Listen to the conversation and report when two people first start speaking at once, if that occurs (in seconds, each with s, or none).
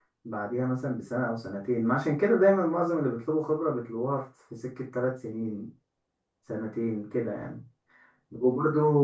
none